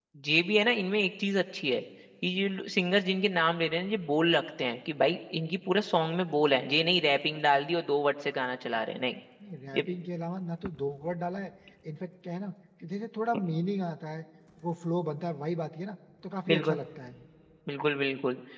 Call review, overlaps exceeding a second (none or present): none